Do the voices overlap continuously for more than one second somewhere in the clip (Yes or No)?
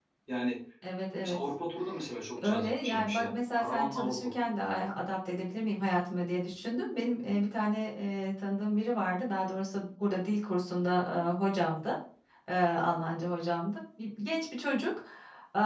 Yes